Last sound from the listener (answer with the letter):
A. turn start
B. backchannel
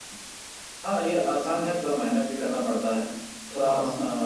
B